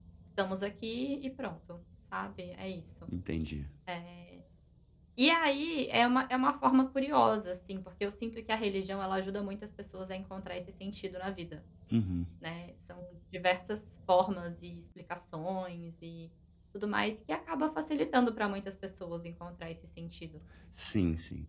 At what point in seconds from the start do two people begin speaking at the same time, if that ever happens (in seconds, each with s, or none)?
none